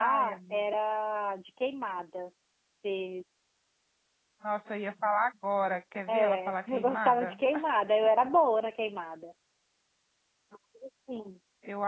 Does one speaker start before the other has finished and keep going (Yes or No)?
Yes